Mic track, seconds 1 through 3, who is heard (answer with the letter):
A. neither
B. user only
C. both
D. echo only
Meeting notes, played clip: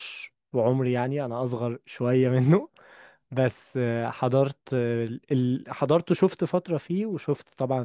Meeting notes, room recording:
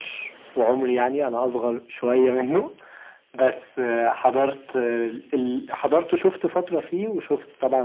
D